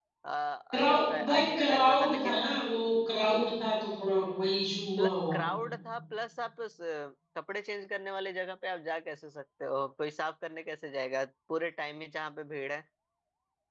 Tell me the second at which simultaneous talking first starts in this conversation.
0.7 s

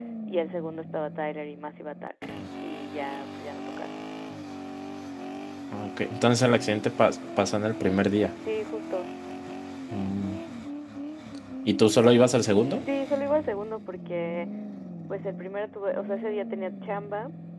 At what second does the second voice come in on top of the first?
none

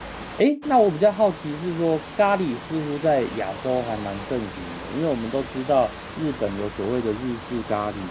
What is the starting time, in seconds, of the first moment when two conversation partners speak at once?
none

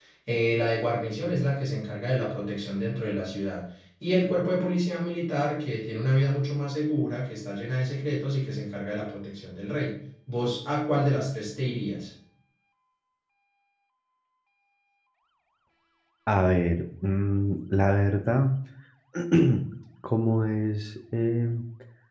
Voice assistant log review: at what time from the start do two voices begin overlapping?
none

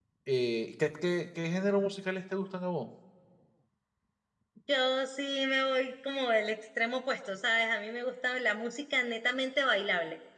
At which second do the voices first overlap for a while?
none

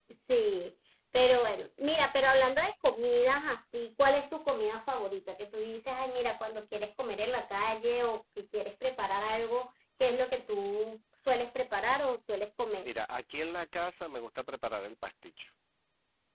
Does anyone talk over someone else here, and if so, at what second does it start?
none

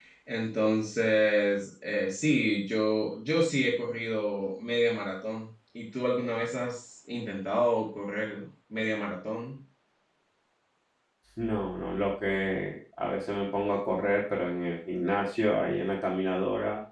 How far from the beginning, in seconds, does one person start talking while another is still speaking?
none

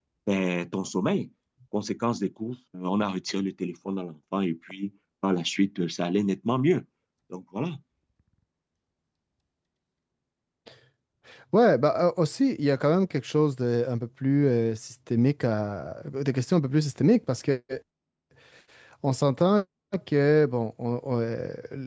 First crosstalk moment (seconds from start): none

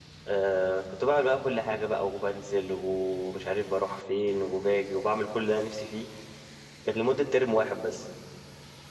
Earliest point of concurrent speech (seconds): none

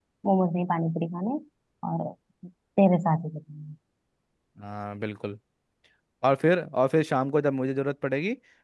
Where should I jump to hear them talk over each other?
none

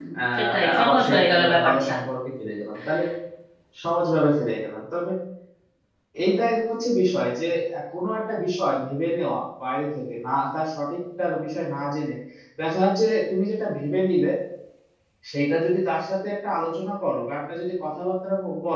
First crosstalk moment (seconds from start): 0.5 s

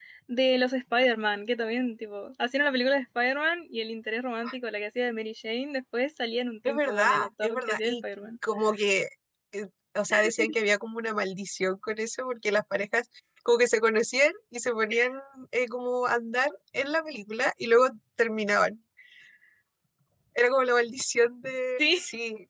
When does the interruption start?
6.7 s

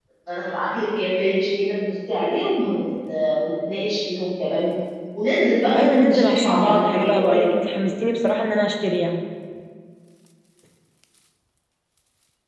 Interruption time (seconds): 5.8 s

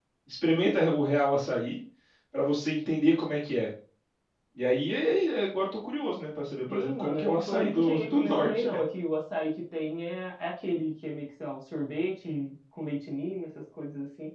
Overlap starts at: 6.7 s

